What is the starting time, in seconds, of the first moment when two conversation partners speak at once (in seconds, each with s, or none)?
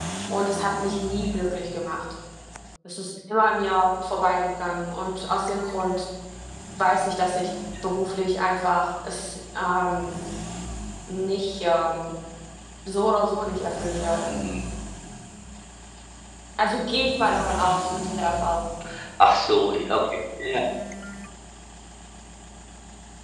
none